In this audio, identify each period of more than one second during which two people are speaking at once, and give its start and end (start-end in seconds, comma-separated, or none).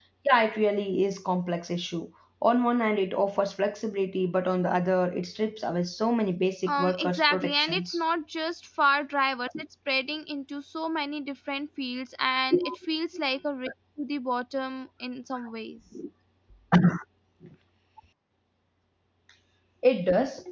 6.7-8.0